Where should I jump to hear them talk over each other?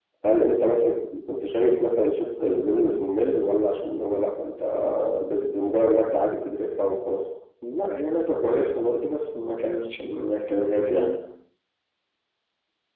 none

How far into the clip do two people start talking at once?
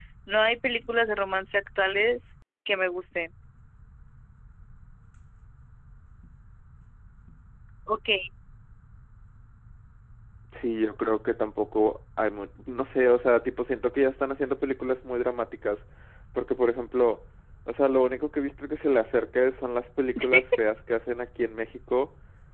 none

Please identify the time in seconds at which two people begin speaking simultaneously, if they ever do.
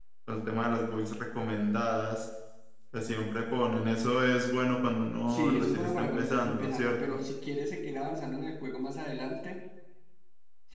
5 s

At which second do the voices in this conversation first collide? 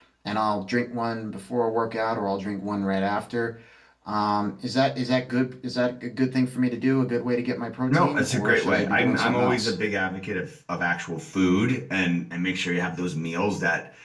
8 s

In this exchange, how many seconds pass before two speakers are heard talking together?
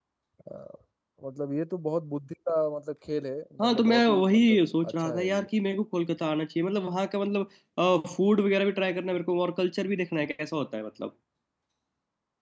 4 s

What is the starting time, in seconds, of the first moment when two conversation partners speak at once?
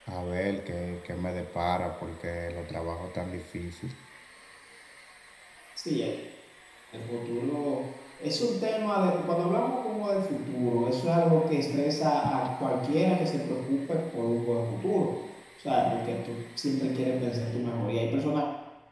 none

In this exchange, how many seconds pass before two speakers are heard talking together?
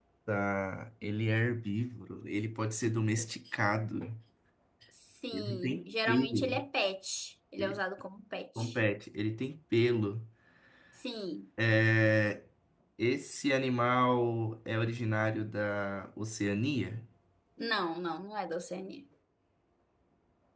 5 s

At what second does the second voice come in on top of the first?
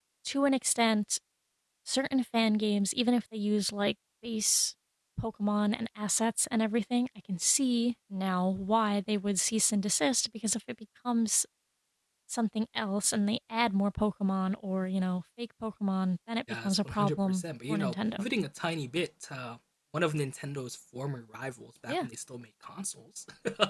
16 s

